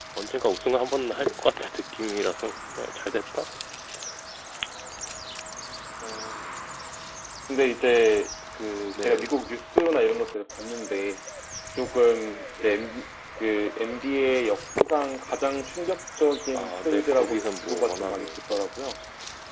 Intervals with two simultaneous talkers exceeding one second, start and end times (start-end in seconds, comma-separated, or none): 16.5-18.3